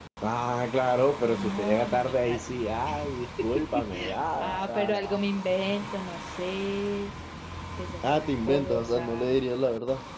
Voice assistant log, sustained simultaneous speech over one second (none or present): present